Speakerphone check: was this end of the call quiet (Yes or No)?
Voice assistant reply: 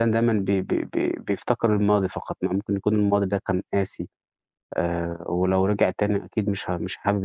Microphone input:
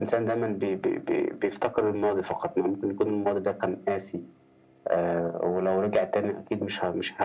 Yes